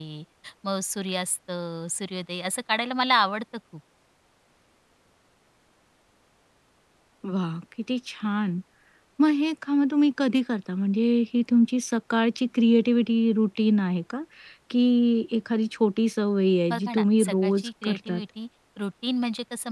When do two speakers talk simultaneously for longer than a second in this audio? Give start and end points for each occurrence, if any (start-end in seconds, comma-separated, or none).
16.7-18.2